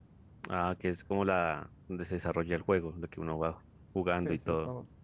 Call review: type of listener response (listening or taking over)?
taking over